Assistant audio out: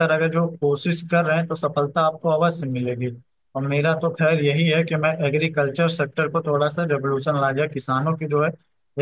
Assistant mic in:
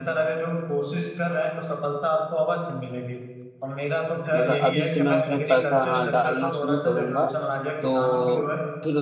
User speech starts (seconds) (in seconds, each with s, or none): 4.3 s